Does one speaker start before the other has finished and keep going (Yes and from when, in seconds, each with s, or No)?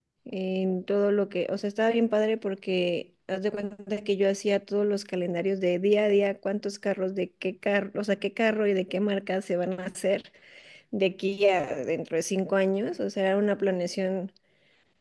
No